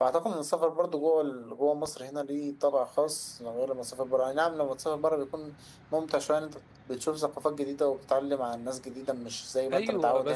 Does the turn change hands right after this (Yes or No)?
Yes